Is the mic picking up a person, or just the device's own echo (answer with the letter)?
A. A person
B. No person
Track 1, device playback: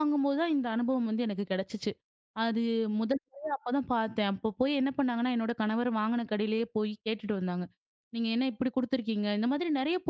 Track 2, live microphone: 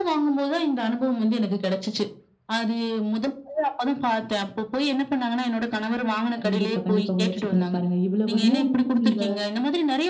A